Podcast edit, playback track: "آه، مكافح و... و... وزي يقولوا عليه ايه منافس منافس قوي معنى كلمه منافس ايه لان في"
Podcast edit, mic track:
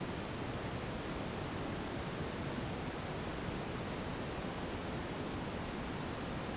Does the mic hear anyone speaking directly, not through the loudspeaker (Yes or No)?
No